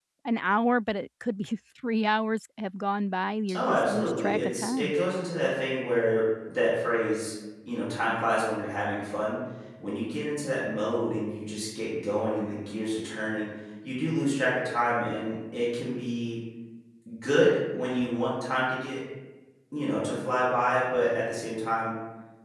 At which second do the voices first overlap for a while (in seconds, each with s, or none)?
3.5 s